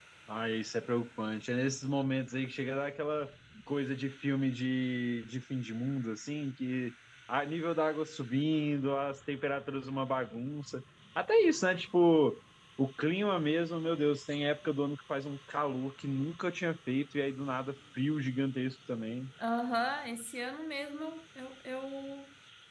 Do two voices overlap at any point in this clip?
No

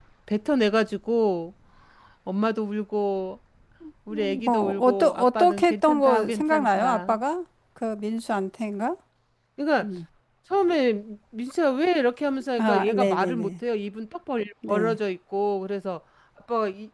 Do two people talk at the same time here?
Yes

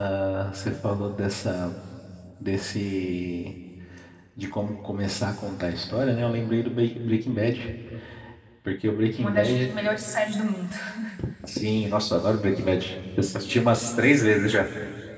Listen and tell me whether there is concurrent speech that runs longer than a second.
No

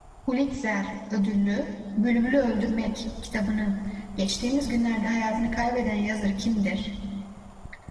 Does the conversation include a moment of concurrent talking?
No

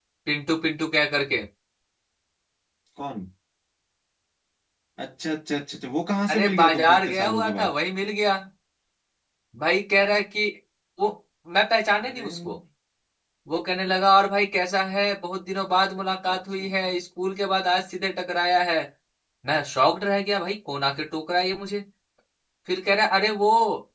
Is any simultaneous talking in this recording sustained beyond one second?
Yes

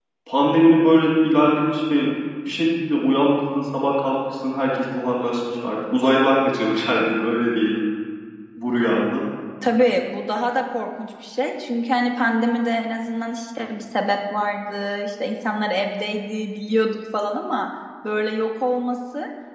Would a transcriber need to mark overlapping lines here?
No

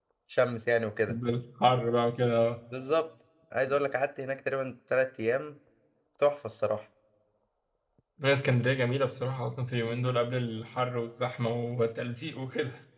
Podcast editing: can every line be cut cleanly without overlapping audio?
Yes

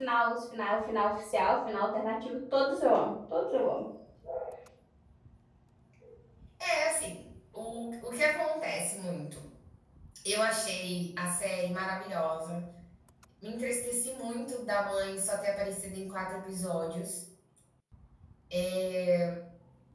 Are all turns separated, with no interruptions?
Yes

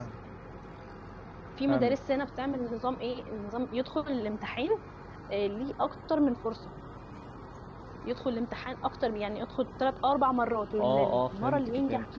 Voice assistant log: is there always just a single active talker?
No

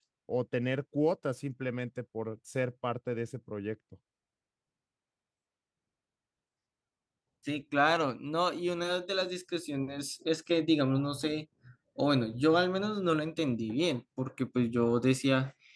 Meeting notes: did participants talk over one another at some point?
No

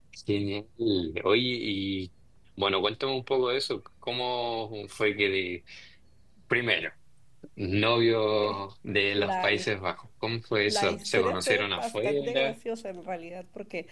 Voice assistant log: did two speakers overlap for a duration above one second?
Yes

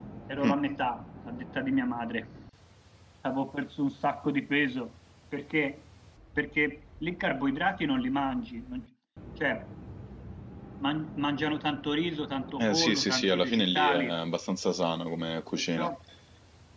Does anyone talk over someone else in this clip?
Yes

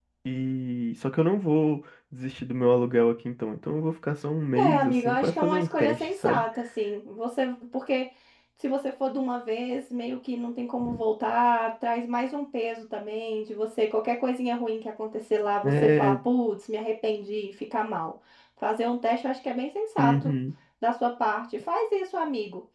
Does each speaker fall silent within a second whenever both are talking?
No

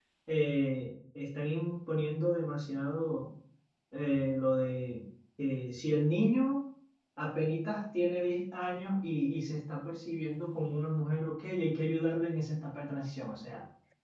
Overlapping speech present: No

